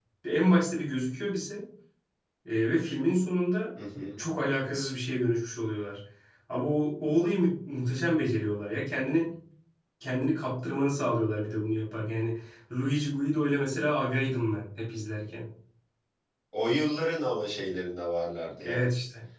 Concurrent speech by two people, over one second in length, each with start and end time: none

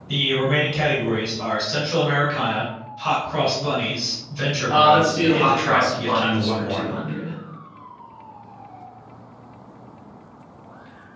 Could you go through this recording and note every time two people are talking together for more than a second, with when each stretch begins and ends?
4.7-6.8

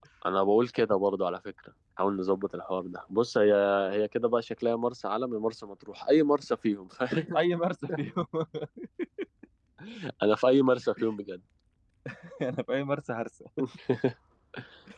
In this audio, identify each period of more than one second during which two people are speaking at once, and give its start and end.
none

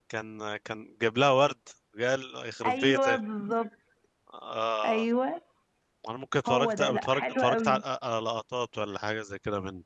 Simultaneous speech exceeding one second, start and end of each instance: 6.5-7.8

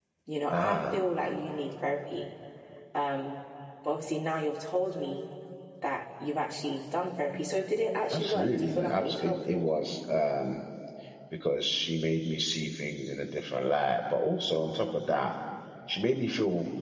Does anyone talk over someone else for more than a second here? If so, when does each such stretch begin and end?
8.1-9.7

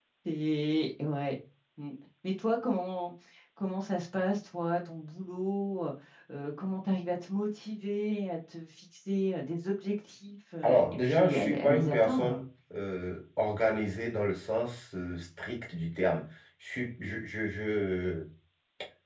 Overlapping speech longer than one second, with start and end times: 10.6-12.4

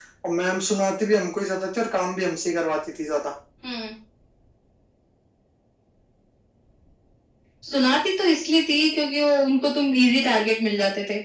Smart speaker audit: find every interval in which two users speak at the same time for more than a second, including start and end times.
none

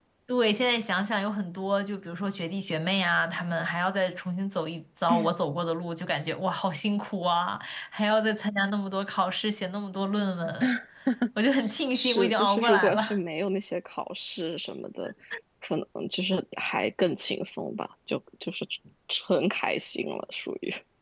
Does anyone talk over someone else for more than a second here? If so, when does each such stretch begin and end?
11.9-13.2

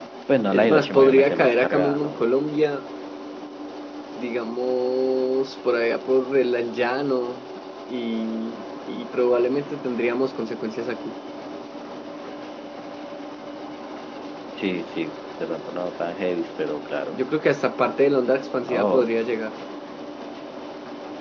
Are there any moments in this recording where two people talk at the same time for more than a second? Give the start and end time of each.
0.5-2.2

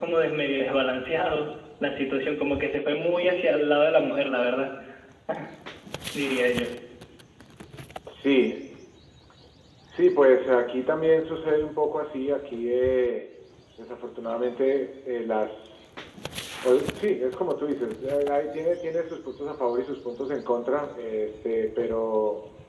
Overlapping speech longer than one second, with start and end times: none

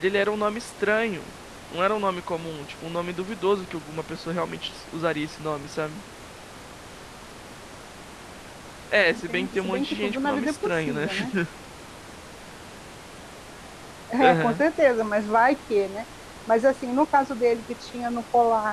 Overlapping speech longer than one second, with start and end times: 9.3-11.1

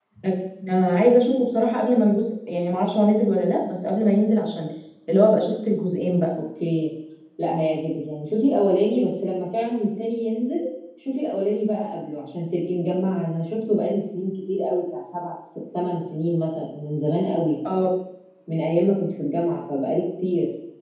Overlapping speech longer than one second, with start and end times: none

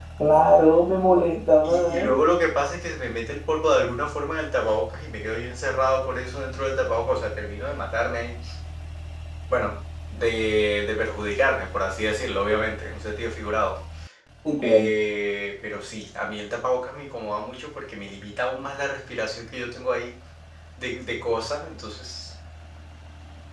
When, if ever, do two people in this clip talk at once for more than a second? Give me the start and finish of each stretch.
none

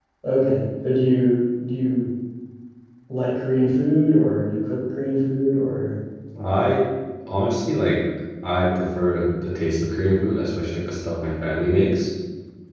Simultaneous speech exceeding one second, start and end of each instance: none

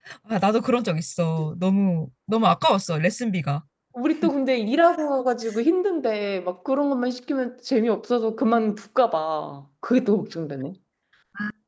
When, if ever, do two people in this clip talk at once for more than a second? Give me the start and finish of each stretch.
none

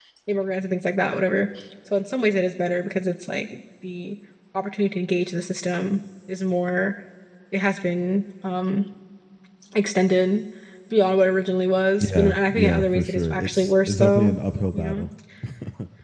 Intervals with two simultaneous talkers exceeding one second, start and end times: 12.0-14.4

